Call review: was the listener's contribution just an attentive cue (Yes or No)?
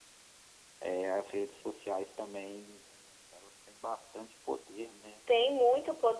No